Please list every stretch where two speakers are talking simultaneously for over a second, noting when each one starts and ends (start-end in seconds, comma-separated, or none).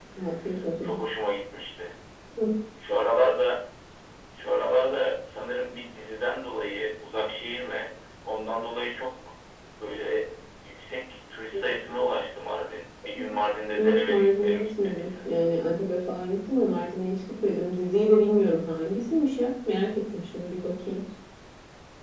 13.8-15.3